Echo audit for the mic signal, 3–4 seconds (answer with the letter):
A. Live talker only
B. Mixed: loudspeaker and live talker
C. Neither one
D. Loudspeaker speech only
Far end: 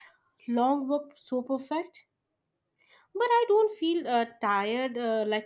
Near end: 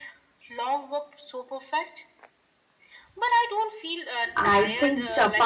D